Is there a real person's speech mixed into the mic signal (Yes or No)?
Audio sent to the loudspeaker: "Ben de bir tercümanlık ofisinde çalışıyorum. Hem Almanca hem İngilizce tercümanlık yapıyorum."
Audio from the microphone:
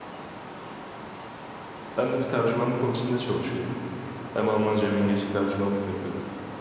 No